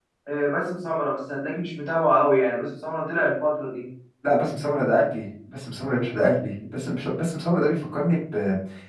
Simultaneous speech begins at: none

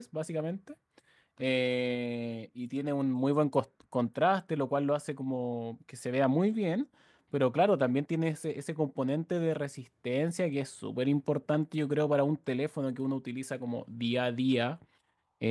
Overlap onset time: none

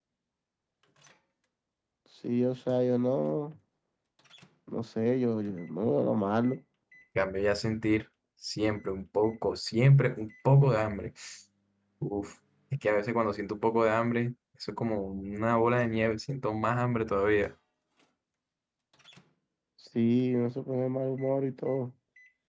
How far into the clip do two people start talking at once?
none

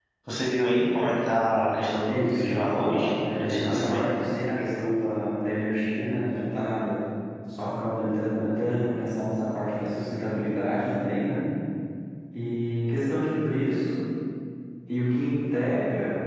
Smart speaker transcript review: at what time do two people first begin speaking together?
2.1 s

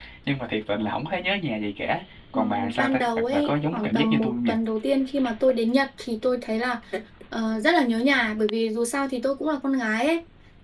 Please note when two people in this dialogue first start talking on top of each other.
2.3 s

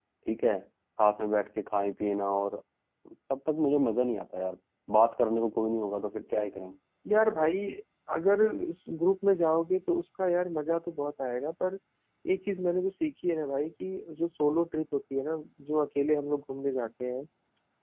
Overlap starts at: none

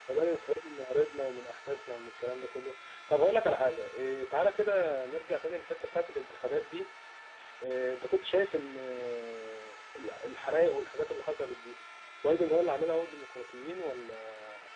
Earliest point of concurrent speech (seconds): none

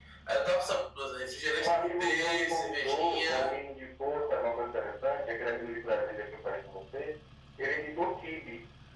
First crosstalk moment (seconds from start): 1.6 s

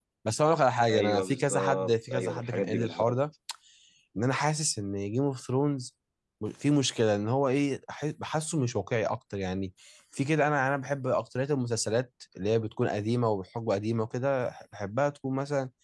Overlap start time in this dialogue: 0.9 s

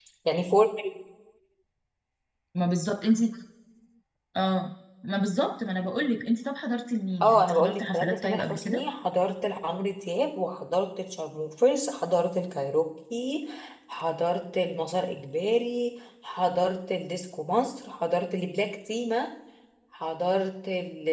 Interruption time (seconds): 7.2 s

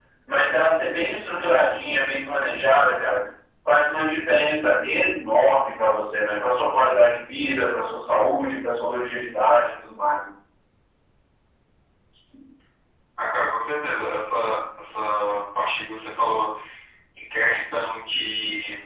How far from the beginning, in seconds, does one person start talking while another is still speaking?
none

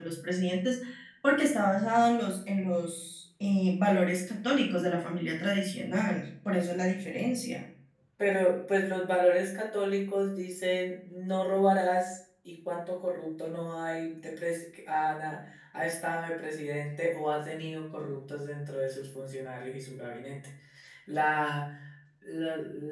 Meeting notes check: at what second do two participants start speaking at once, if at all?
none

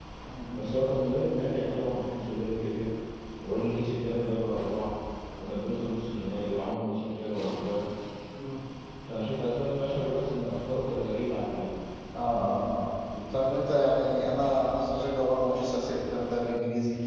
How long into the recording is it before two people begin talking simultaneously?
none

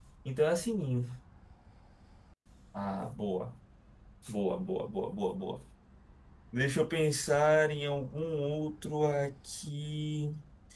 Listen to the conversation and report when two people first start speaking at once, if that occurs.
none

